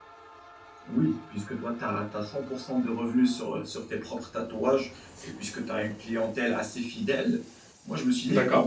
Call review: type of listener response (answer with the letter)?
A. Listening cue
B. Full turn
A